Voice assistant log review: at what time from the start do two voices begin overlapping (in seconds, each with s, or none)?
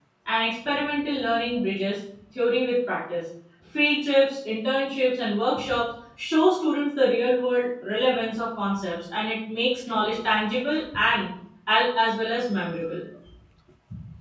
none